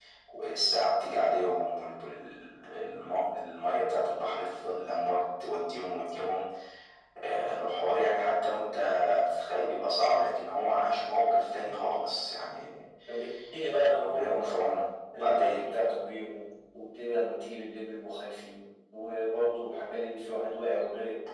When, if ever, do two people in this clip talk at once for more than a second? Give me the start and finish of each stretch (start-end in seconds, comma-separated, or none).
none